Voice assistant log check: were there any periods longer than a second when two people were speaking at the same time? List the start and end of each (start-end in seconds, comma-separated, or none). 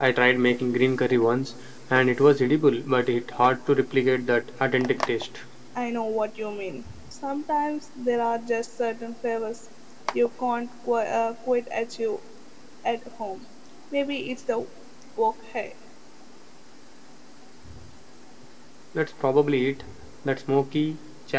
none